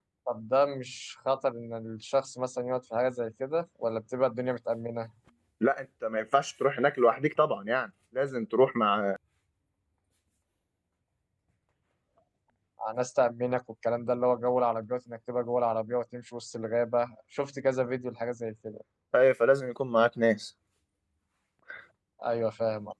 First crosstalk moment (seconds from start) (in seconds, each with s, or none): none